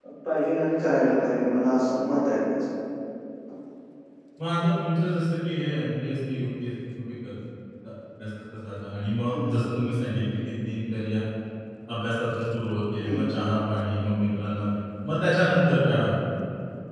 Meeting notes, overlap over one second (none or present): none